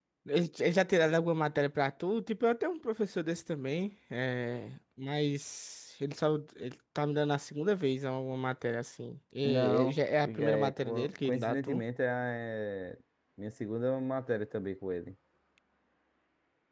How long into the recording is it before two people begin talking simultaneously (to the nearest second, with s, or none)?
9 s